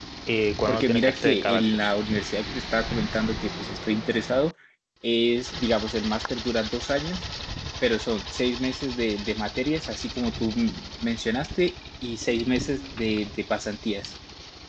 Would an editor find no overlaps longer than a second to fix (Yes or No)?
No